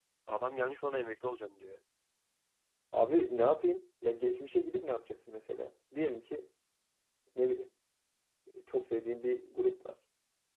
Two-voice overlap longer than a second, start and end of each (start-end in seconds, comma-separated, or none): none